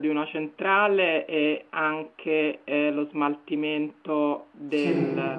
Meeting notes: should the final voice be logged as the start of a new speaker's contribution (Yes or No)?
No